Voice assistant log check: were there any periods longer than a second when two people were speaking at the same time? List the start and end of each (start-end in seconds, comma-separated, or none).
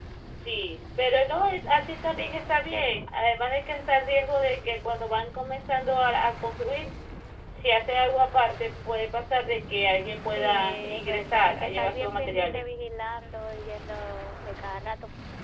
10.3-12.7